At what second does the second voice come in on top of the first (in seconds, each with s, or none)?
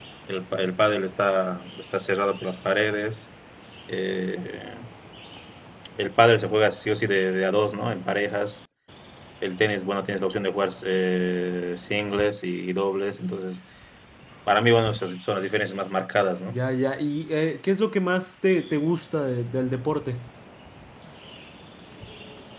none